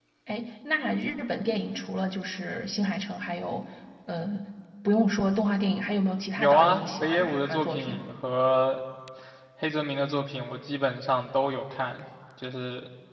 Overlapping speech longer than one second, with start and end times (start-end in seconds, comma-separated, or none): 6.4-8.0